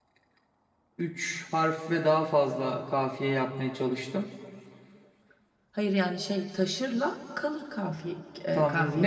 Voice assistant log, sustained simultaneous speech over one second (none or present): none